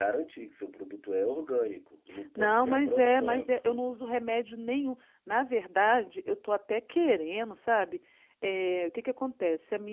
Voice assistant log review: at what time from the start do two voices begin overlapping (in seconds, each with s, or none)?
2.4 s